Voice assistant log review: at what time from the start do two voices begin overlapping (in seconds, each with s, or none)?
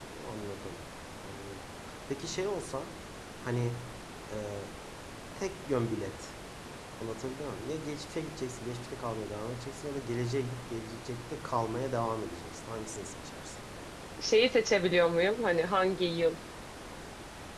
none